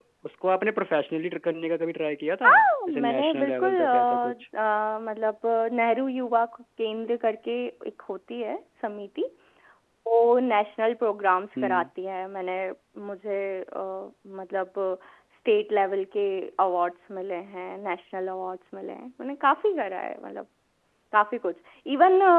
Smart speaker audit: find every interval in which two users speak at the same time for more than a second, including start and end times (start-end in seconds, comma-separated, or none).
2.9-4.3